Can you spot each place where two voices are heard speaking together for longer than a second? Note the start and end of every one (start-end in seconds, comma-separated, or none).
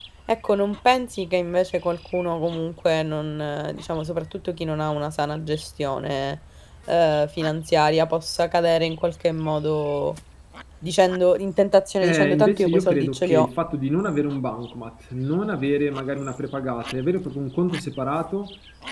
12.0-13.5